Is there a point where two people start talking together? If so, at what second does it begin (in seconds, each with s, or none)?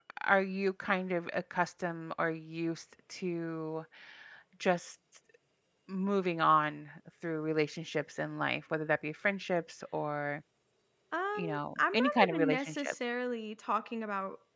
11.4 s